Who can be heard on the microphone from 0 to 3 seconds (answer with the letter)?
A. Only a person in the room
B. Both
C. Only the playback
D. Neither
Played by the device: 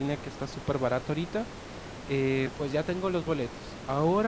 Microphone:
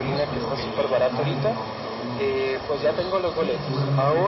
B